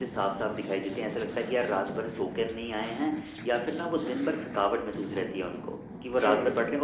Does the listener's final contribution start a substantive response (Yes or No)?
No